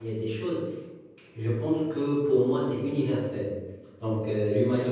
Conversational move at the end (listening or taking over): listening